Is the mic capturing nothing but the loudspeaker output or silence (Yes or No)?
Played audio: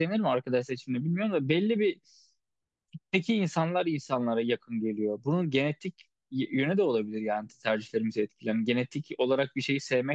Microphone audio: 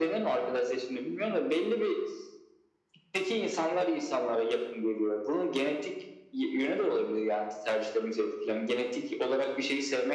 Yes